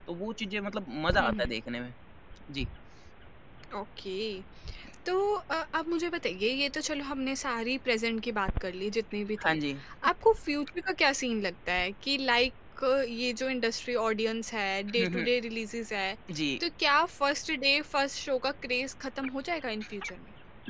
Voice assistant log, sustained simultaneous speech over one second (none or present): none